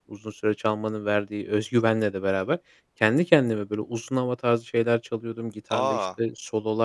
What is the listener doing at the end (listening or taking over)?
listening